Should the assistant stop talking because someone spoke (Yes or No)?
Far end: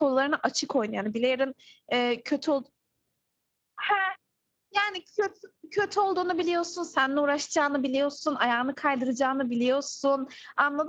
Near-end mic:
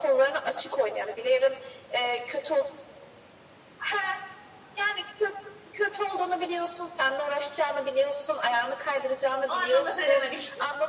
Yes